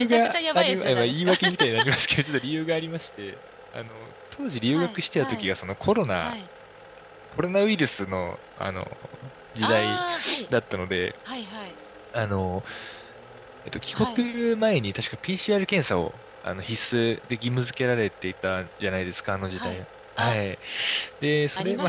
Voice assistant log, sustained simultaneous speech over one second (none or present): present